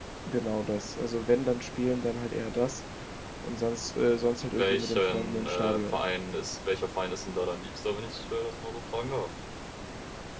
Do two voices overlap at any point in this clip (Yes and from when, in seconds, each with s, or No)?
Yes, from 4.5 s